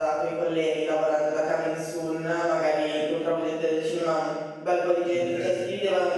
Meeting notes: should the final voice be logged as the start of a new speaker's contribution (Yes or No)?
No